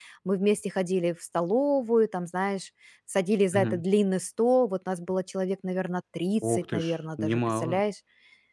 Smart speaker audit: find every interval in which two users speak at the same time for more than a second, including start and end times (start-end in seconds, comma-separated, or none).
6.5-7.8